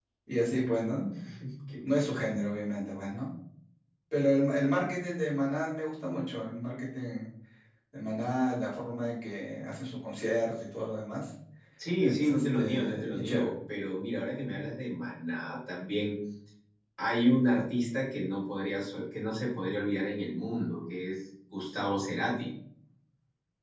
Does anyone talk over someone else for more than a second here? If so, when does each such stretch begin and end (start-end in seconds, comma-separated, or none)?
12.0-13.5